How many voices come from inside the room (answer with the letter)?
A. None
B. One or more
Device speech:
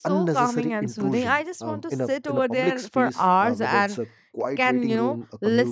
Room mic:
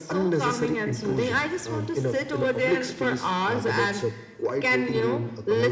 A